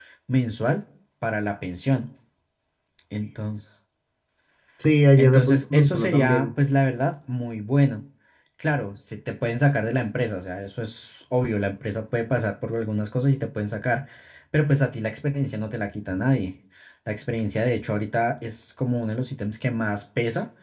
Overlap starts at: 5 s

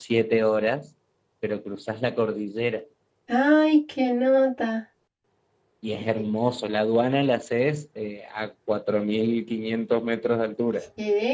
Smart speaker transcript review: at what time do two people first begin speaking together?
none

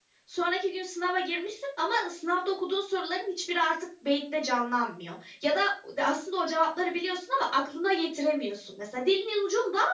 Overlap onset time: none

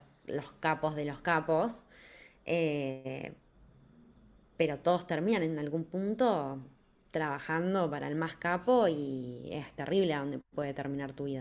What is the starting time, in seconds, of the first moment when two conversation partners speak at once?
none

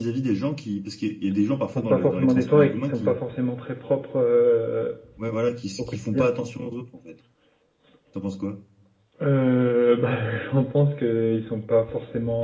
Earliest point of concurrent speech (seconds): 2 s

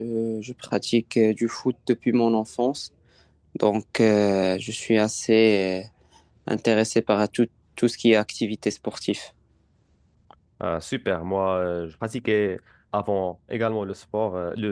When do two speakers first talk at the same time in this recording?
none

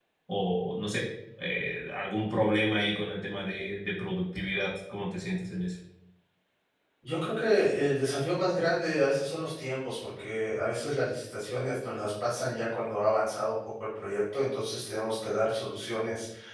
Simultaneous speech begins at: none

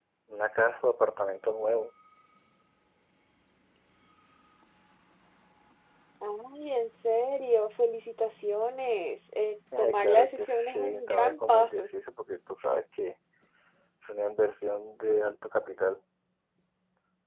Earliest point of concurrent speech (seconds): 10 s

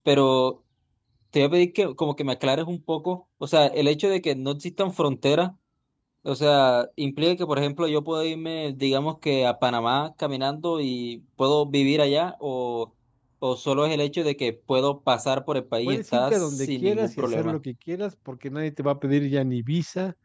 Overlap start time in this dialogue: 16 s

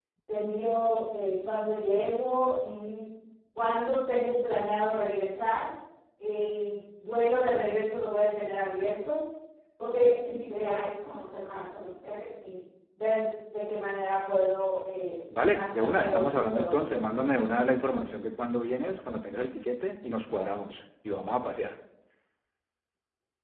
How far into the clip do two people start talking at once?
16 s

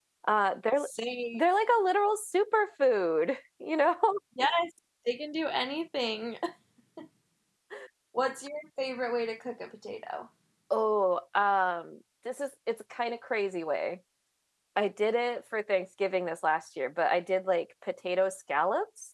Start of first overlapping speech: none

